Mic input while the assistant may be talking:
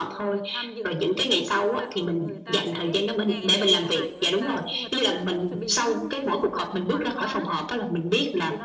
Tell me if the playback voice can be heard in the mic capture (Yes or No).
Yes